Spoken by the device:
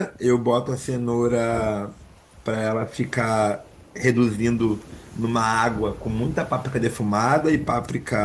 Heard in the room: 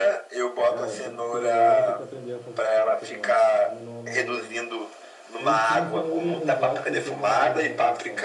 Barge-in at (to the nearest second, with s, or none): 1 s